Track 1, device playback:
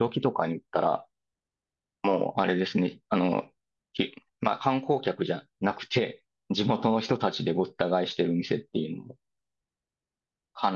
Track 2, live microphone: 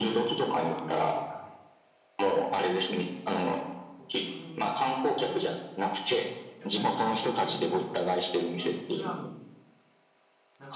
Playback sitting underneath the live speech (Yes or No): No